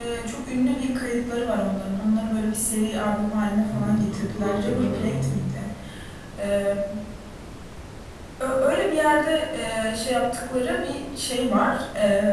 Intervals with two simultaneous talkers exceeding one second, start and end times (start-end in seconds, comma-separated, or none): 3.7-5.4